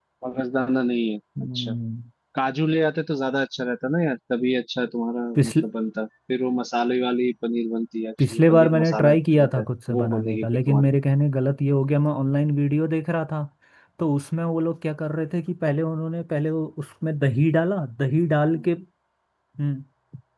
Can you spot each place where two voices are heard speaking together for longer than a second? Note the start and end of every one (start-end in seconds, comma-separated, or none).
8.3-10.9